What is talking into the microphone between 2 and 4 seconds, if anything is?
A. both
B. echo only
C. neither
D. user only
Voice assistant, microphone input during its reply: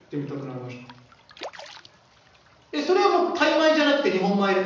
D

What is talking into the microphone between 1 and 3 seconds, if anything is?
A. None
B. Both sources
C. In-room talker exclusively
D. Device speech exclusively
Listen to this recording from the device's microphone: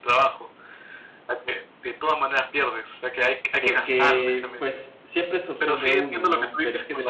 D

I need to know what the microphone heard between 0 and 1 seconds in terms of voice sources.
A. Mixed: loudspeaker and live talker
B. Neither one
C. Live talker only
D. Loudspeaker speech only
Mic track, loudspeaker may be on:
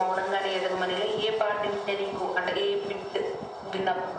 D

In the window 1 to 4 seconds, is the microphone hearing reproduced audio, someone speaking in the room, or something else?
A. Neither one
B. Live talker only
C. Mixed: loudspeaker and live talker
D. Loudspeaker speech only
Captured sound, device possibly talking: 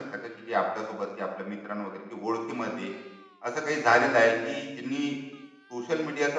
D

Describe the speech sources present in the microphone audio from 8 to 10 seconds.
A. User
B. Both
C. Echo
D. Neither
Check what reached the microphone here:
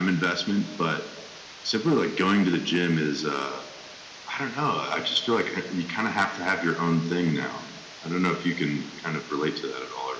C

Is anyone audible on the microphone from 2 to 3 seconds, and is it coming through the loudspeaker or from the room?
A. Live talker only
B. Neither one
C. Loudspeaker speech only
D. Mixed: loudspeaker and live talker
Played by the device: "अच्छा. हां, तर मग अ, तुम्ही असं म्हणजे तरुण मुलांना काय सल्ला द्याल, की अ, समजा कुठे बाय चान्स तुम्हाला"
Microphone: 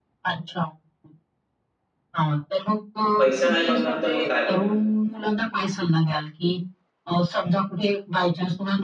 C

